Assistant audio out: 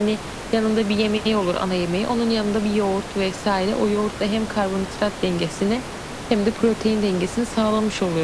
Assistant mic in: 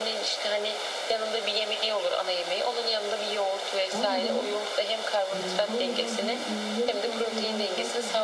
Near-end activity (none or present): present